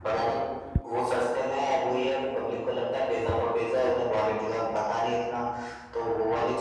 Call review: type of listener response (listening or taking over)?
listening